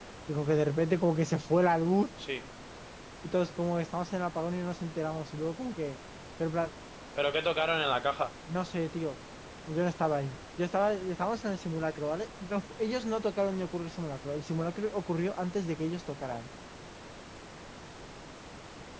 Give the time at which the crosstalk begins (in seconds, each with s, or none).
none